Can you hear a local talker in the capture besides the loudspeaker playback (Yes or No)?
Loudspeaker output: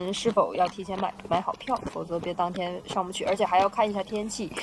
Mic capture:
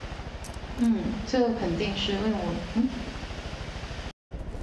Yes